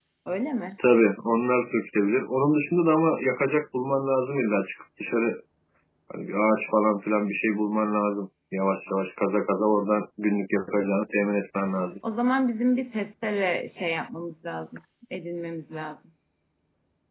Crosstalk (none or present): none